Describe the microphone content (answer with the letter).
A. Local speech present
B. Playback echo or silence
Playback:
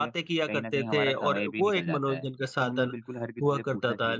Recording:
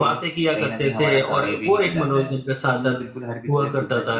B